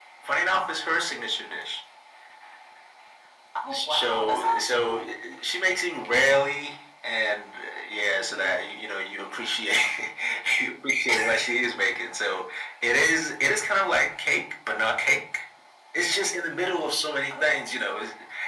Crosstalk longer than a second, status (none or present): present